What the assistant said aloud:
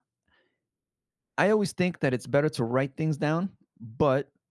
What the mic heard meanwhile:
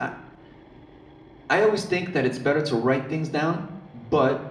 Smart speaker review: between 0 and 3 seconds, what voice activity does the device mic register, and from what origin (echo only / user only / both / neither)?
echo only